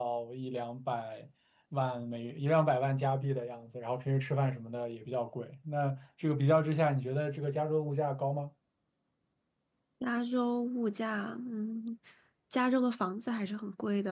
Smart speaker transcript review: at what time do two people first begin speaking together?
none

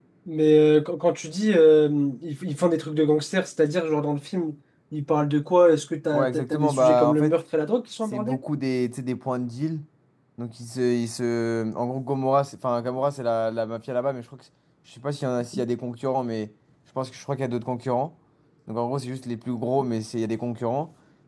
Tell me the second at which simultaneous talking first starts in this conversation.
6.1 s

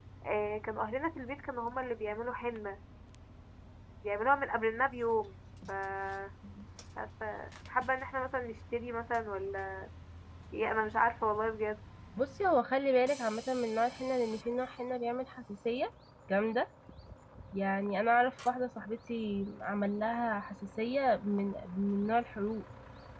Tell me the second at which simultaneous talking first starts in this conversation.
none

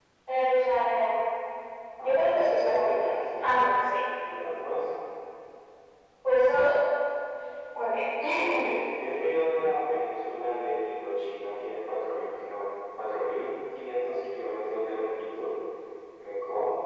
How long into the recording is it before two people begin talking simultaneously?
2.0 s

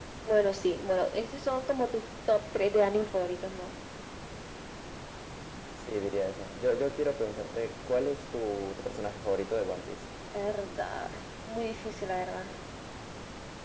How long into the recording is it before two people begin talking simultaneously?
none

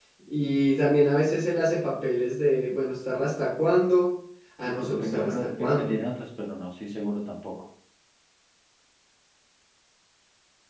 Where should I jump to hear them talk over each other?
4.7 s

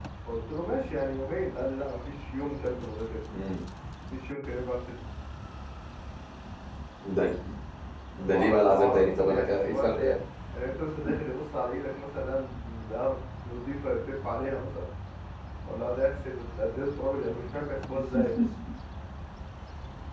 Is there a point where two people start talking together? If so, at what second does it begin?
8.2 s

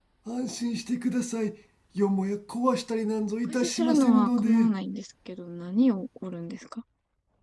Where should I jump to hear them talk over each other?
3.5 s

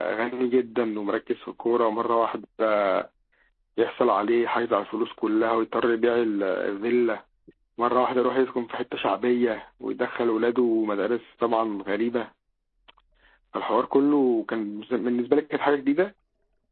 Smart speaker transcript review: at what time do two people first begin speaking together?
none

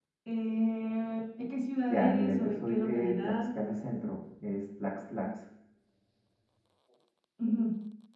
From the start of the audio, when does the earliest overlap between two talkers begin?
1.9 s

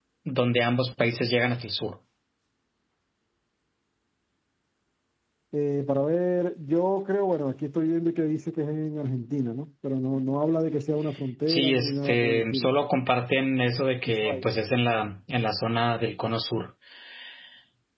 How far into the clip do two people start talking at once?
11.5 s

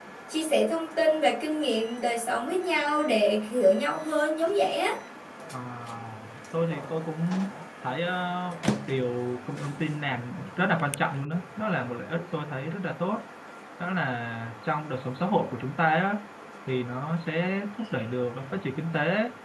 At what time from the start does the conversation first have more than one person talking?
none

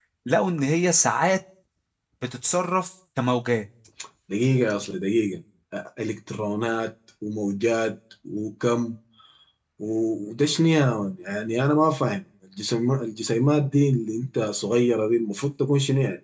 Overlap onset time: none

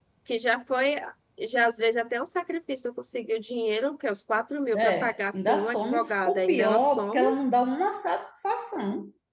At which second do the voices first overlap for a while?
4.7 s

